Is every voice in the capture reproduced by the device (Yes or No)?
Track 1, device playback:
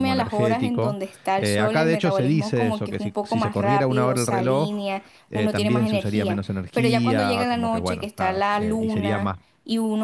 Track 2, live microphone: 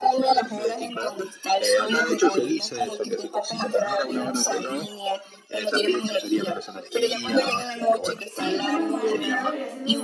No